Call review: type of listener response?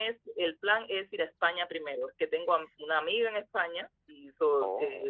listening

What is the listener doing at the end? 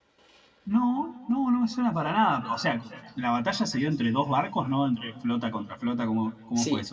taking over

